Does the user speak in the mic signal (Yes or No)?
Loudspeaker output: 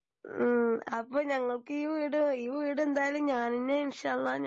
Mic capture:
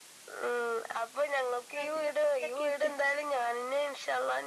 Yes